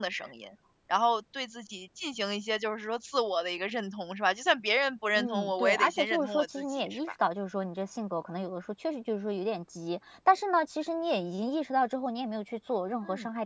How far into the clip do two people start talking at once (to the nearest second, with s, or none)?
5 s